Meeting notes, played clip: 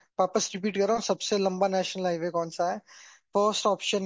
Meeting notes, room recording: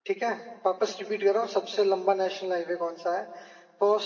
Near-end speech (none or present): none